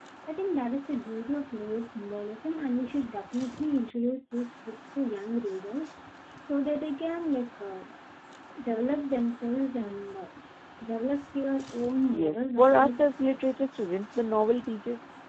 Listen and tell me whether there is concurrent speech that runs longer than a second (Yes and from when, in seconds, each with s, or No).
Yes, from 12.1 s